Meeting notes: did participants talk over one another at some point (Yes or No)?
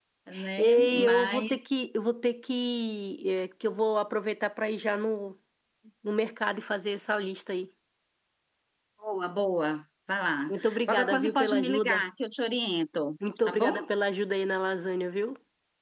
Yes